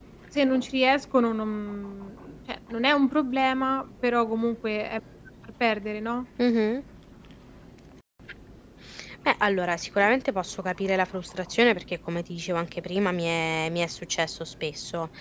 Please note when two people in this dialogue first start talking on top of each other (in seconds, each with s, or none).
none